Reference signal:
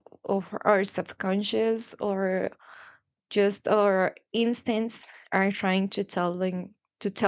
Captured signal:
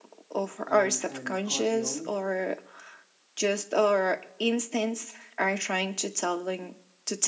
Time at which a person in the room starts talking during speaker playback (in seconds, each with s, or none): 0.6 s